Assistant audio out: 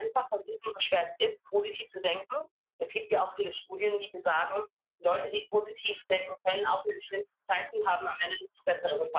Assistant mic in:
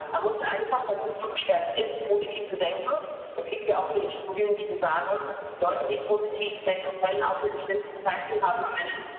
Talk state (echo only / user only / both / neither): echo only